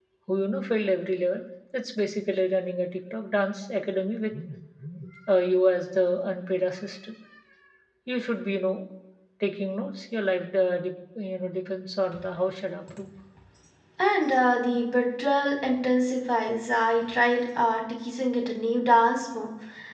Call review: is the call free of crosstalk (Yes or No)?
Yes